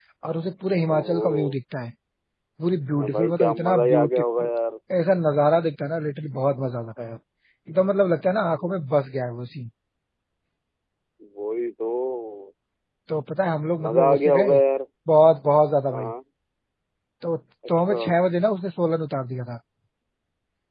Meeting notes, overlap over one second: present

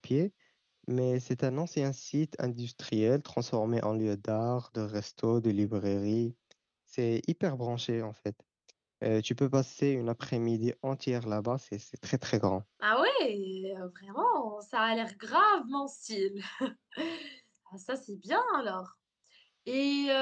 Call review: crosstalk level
none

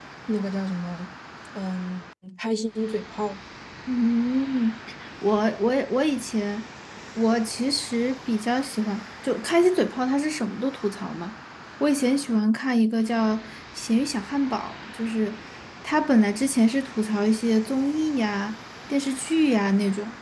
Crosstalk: none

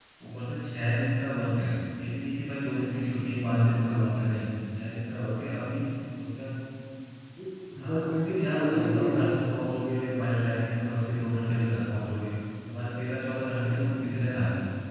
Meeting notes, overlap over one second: present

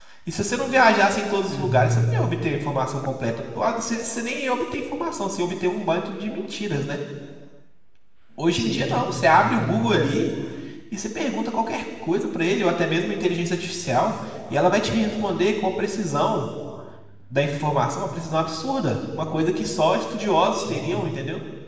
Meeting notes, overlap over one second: present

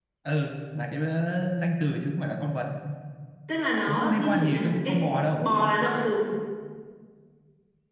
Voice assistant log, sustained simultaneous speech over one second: present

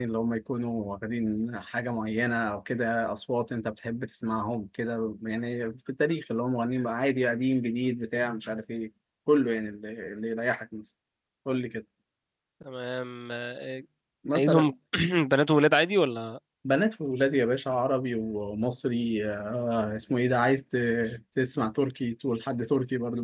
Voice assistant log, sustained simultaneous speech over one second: none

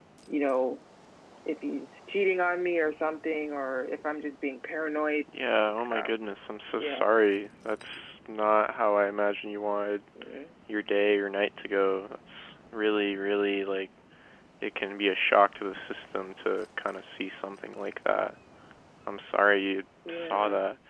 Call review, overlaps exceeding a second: none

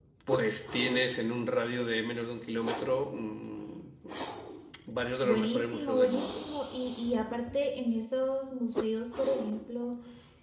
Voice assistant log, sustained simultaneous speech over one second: present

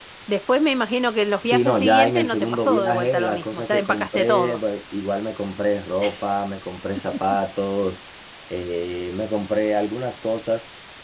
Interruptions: present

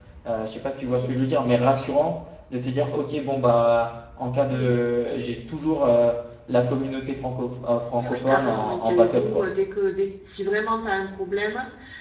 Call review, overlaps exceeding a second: present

